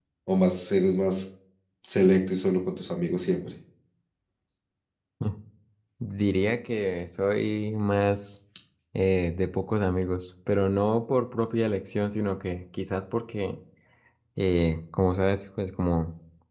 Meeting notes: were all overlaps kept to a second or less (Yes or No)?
Yes